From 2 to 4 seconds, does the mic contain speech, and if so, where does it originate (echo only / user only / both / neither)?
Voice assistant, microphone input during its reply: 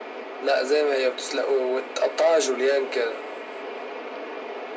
echo only